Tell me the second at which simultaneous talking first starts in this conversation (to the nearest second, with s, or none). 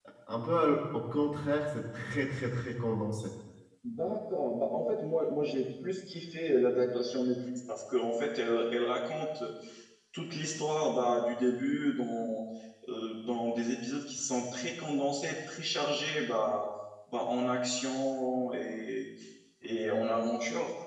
none